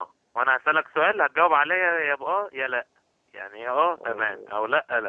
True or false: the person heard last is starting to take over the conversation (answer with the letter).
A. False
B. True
A